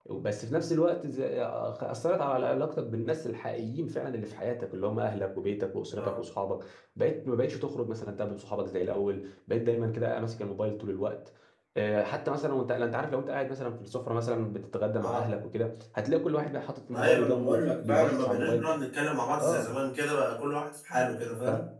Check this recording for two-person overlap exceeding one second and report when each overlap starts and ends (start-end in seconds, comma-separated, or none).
16.9-18.7